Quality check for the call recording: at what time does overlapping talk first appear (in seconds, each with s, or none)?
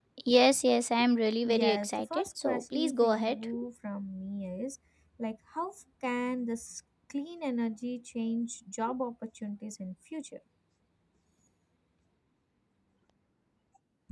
1.4 s